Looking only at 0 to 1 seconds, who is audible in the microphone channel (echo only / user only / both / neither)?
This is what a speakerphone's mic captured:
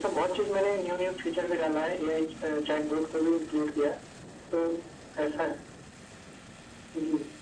echo only